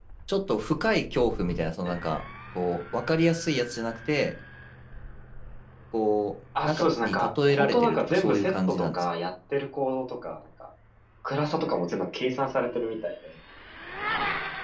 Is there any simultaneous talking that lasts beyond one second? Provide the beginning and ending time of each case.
6.7-9.0

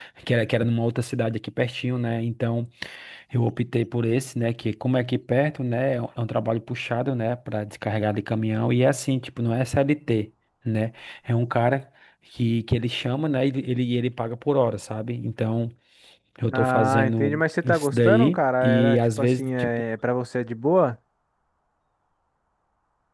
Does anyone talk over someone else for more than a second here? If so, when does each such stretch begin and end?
16.5-19.7

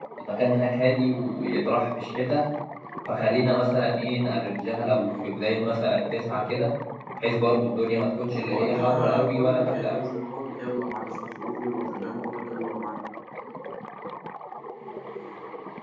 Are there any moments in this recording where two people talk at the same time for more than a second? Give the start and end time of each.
8.5-10.0

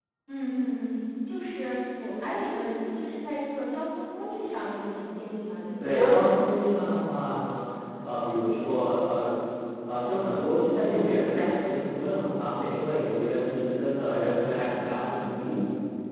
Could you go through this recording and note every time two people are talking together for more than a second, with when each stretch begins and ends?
5.8-7.2

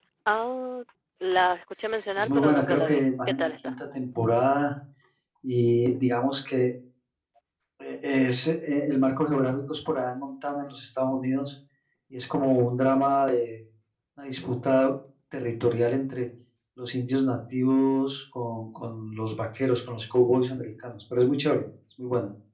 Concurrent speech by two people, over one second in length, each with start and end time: 2.2-3.8

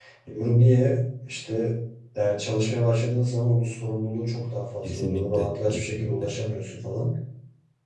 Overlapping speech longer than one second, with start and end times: 4.8-6.3

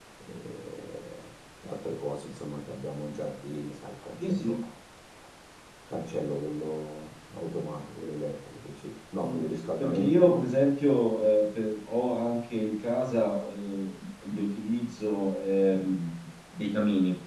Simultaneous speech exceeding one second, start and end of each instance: 9.2-10.5

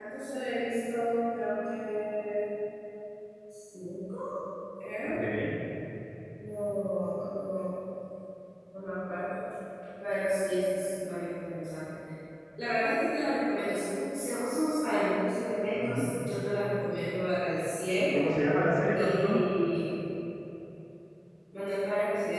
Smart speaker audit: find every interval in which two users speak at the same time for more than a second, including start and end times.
none

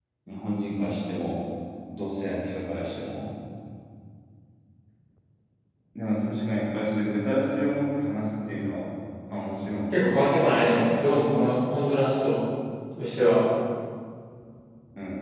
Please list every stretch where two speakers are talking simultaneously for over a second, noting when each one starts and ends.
none

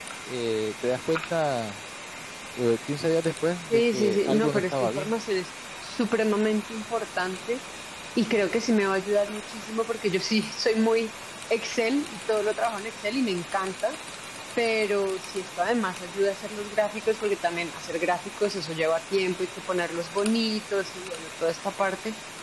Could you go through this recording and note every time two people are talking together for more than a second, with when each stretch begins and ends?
3.7-5.1

